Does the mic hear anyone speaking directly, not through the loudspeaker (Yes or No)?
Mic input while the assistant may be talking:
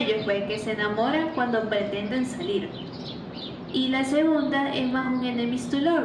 No